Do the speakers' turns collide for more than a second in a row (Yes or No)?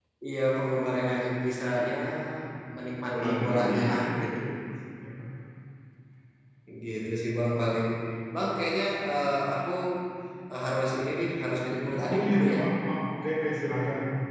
Yes